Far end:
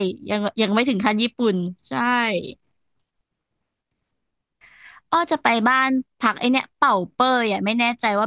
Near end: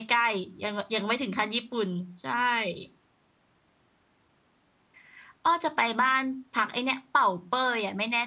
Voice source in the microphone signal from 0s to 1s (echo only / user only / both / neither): echo only